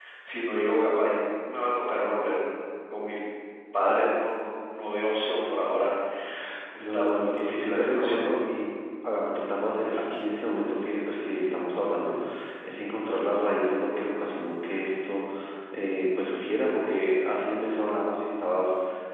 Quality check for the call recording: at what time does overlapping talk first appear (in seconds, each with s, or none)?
6.8 s